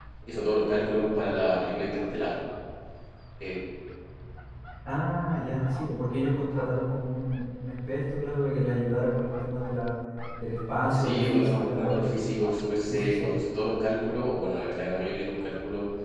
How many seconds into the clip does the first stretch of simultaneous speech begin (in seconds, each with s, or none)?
10.9 s